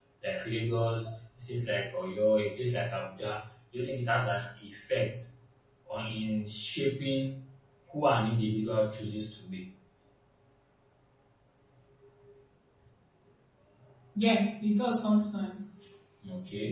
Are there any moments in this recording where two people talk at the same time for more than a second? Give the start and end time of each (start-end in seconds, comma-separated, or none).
none